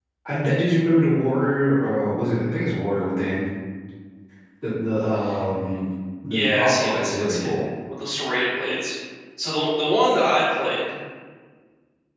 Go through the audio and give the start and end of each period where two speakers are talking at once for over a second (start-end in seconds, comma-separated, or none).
6.3-7.5